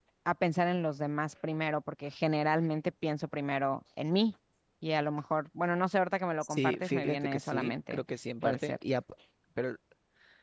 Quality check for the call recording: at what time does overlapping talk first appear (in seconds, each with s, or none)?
6.4 s